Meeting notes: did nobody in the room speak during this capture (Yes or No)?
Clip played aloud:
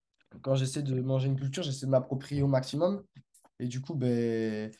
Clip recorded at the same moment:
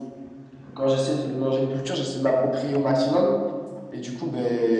Yes